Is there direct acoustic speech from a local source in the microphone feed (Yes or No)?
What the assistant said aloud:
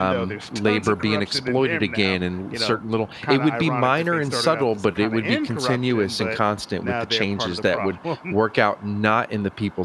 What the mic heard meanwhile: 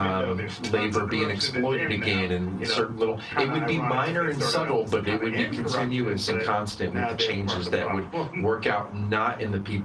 No